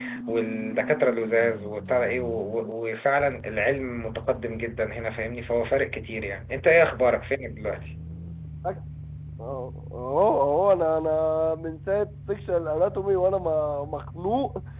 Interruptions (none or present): none